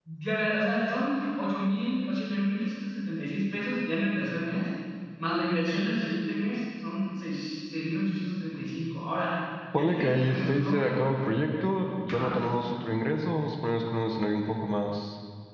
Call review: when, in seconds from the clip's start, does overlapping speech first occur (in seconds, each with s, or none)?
9.8 s